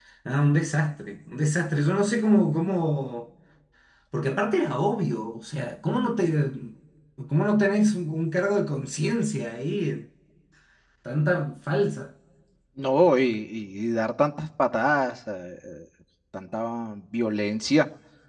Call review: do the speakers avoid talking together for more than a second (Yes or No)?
Yes